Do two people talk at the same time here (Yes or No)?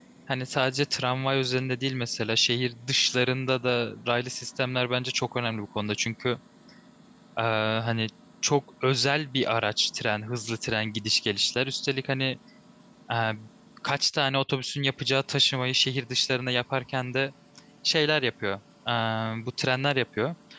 No